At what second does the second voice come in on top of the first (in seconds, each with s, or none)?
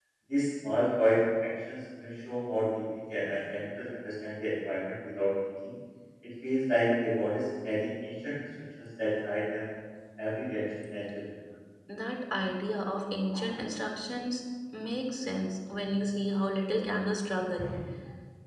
none